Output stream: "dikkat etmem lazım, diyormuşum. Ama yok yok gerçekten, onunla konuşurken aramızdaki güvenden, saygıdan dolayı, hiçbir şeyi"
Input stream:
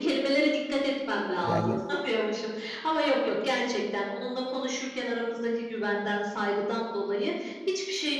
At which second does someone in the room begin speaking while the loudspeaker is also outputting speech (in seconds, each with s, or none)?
1.4 s